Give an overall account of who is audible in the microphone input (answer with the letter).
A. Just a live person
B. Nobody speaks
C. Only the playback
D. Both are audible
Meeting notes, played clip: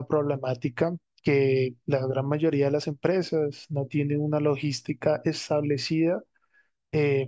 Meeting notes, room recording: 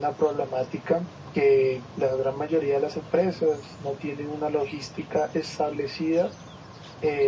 C